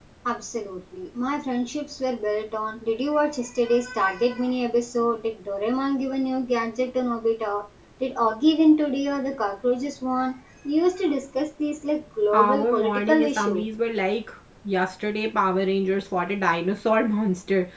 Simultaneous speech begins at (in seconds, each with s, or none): 12.3 s